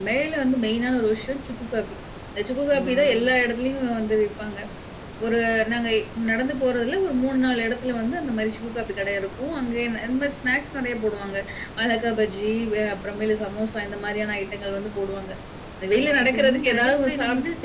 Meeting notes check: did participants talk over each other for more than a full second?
Yes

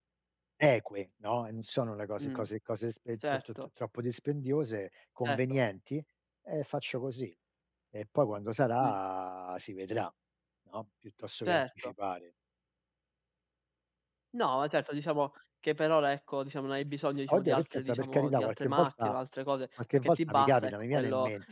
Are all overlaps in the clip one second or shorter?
No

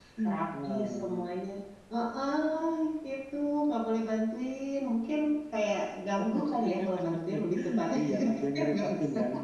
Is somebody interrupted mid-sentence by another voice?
Yes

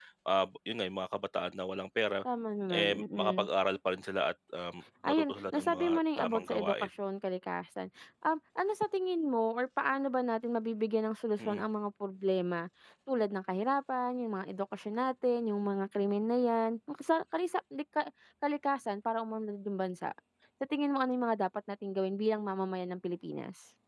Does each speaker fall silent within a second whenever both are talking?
No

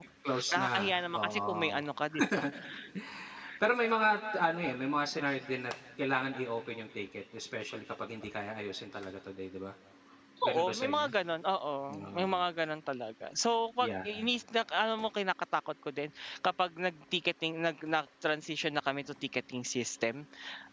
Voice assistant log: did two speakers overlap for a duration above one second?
Yes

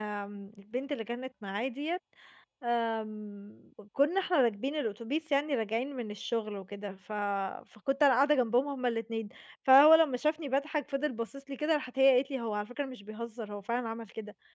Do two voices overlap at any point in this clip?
No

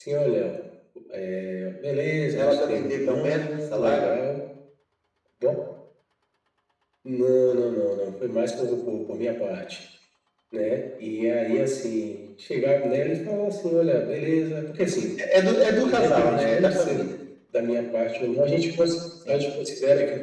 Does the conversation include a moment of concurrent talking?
Yes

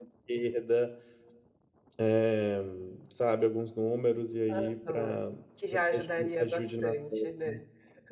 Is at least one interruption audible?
Yes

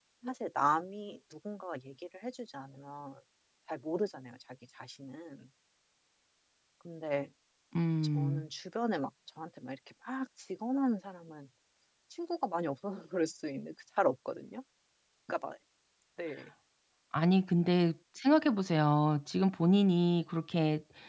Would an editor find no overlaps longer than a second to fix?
Yes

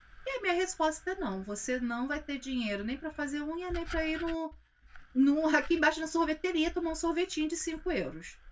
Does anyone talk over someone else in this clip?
No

